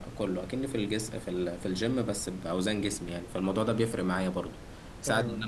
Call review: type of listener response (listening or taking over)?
listening